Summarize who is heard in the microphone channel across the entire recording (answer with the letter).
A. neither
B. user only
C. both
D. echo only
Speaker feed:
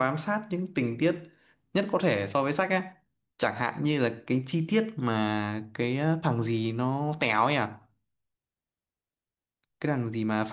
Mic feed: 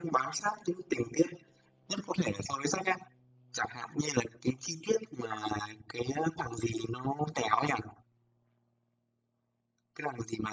D